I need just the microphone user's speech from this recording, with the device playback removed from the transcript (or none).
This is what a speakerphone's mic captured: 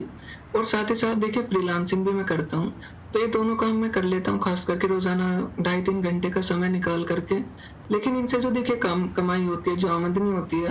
none